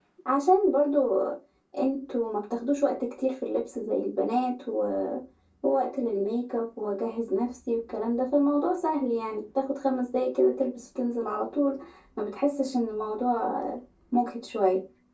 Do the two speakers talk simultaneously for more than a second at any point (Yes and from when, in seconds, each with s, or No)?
No